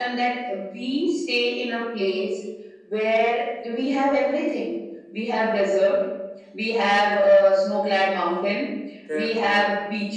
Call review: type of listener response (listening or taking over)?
listening